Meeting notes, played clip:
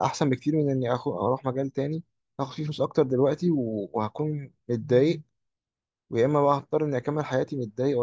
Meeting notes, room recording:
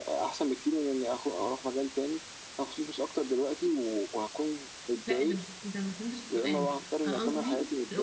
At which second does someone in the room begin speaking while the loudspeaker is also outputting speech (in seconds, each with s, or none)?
5.0 s